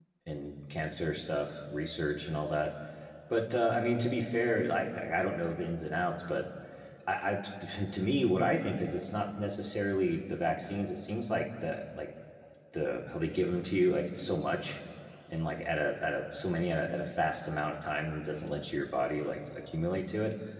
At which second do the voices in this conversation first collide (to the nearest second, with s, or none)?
none